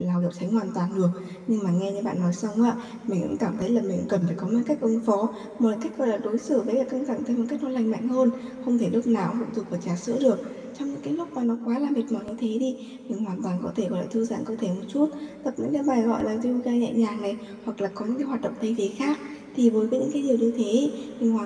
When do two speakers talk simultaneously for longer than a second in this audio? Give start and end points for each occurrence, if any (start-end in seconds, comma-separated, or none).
none